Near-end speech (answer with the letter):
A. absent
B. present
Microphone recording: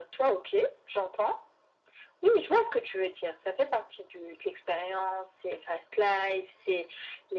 A